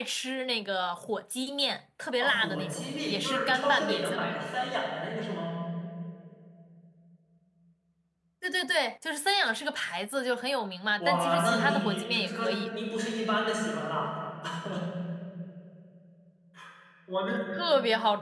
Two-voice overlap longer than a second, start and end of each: 2.2-4.5, 11.0-12.6

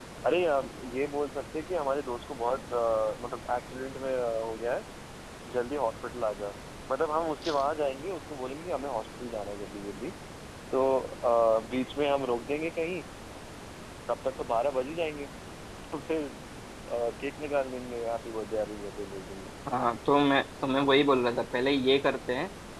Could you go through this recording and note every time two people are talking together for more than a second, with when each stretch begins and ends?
none

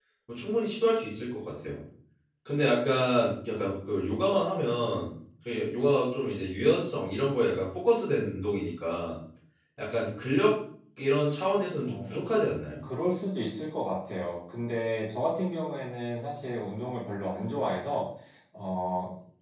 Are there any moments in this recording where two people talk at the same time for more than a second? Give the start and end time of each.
none

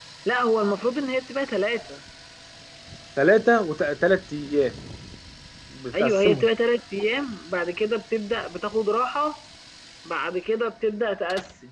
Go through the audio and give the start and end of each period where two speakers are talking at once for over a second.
none

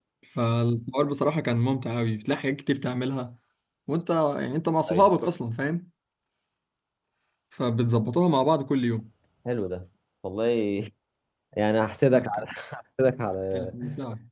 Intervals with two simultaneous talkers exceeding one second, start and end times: none

